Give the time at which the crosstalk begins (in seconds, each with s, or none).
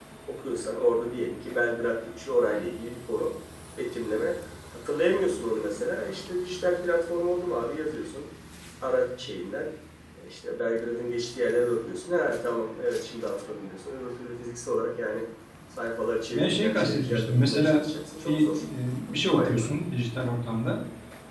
16.3 s